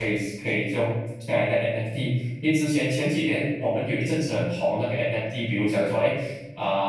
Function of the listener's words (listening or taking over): listening